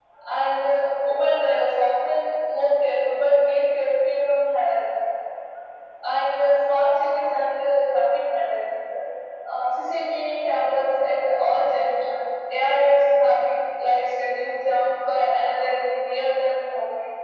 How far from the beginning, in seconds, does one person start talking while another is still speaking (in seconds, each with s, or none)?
none